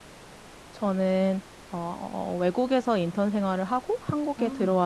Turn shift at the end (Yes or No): No